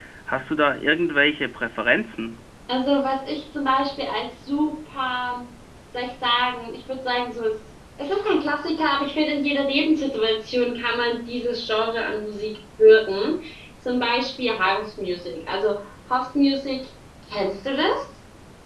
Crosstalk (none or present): none